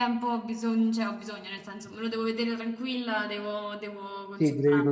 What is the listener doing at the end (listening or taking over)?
taking over